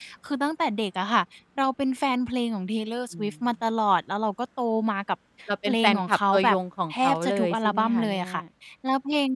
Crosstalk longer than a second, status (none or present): present